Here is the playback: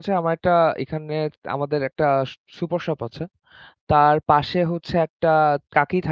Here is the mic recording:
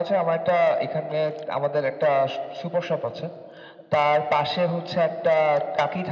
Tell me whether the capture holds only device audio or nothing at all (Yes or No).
Yes